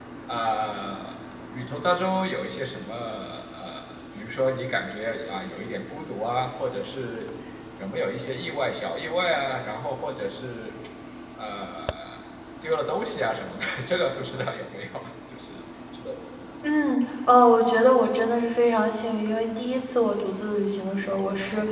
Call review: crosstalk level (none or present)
none